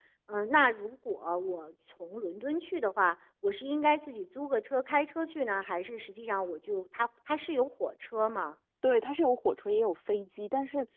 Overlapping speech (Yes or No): No